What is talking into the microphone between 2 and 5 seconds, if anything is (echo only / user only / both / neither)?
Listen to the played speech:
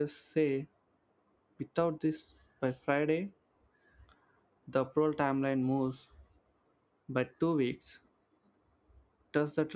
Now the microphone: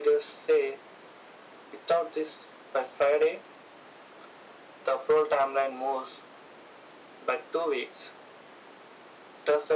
echo only